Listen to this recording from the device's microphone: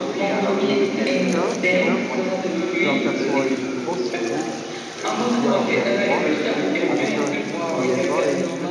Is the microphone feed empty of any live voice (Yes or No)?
No